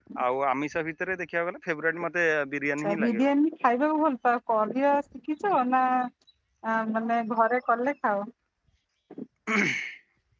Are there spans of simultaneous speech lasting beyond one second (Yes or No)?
No